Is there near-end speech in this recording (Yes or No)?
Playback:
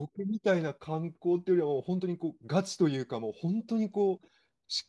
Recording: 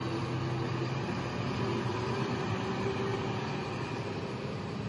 No